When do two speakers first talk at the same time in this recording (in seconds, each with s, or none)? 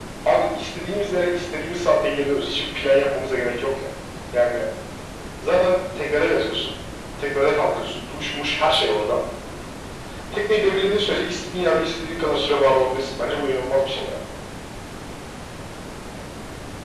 none